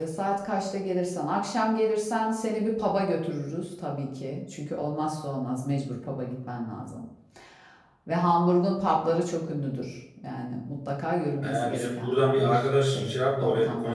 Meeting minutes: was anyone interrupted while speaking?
Yes, from 11.4 s

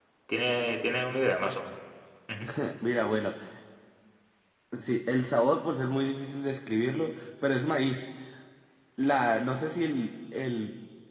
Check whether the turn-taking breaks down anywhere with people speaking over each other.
No

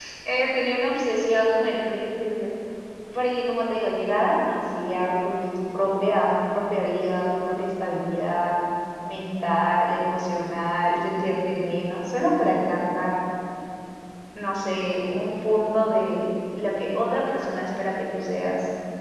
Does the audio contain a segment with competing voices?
No

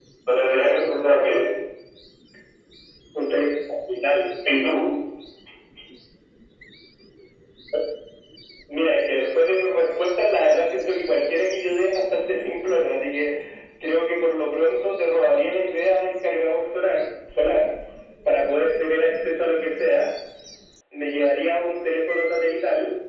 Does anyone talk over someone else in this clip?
No

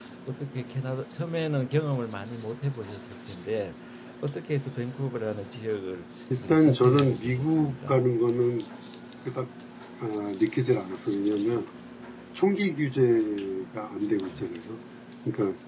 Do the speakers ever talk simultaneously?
Yes, from 6.3 s

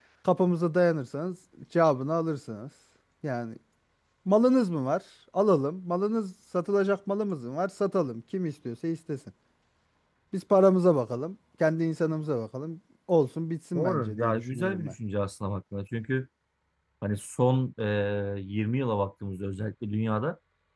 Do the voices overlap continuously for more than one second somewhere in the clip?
Yes, from 13.8 s

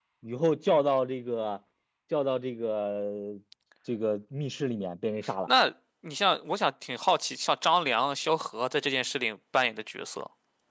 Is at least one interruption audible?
No

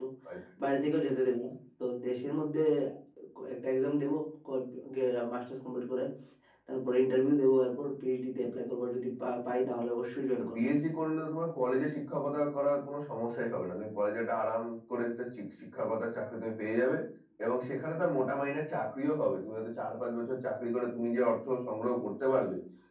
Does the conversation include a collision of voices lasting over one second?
No

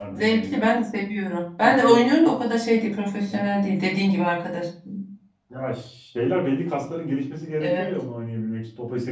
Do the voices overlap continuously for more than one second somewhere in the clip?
No

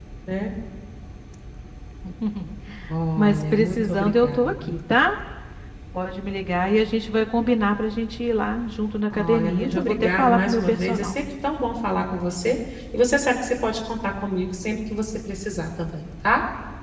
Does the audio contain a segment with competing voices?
Yes, from 3.2 s

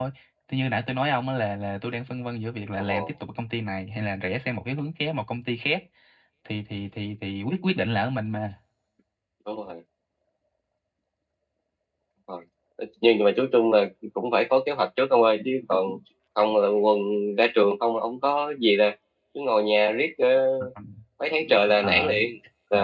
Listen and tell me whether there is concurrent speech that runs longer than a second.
No

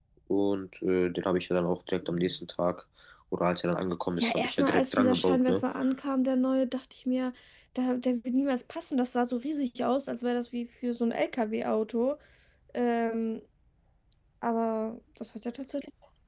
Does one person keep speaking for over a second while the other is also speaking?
Yes, from 4.2 s

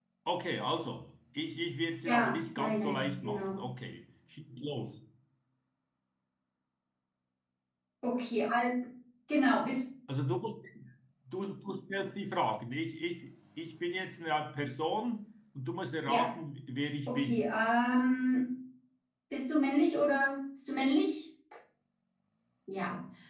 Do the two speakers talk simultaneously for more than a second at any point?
Yes, from 2.0 s

